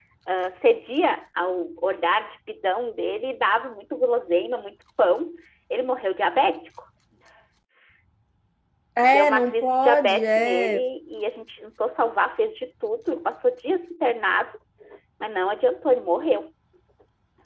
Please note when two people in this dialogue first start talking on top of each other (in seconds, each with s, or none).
9.0 s